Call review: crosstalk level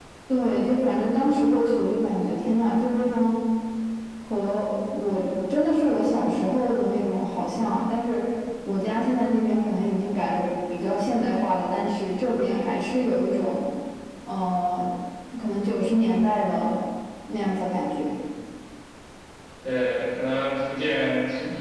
none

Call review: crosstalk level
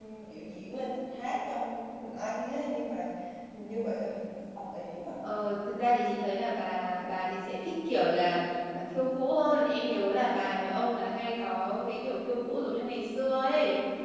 none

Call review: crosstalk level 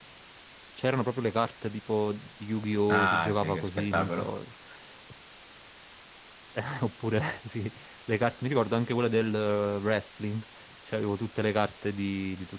present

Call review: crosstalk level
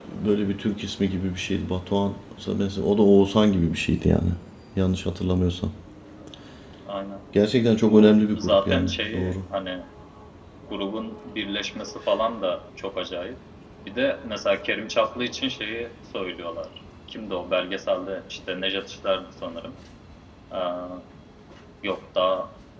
present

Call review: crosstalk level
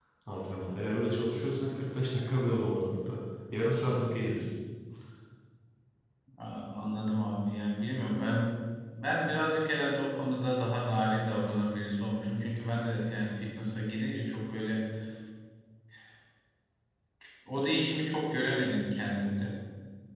none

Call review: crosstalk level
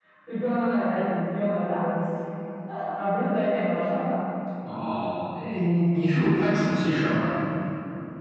none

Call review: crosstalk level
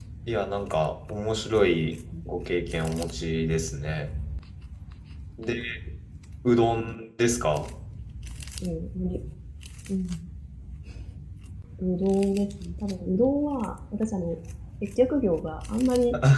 none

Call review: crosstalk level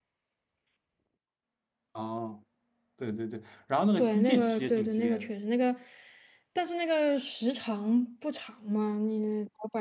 present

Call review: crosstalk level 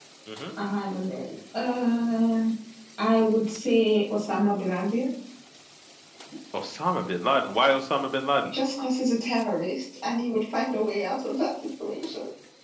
none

